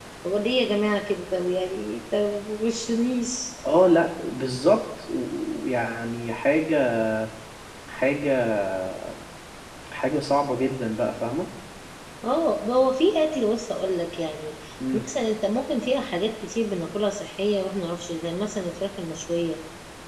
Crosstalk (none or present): none